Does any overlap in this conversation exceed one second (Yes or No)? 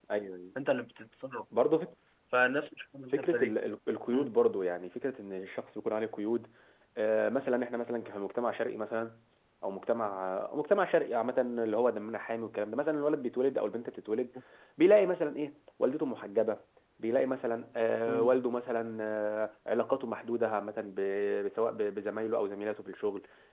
No